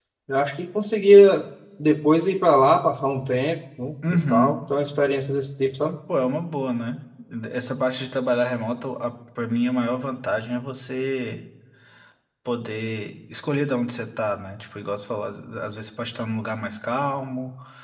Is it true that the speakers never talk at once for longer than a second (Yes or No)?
Yes